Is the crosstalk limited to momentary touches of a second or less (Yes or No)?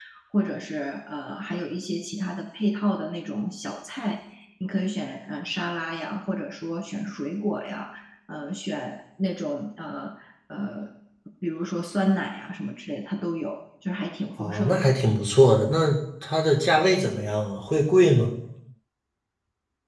Yes